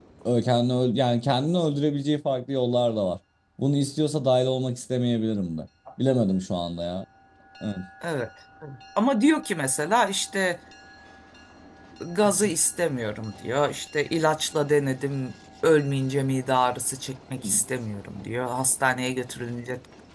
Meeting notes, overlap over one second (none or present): none